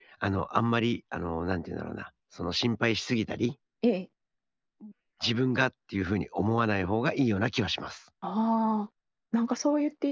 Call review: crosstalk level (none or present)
none